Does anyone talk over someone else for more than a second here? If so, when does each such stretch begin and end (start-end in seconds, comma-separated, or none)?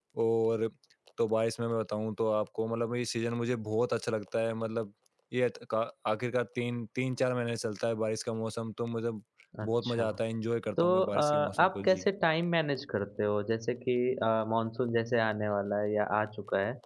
10.8-12.1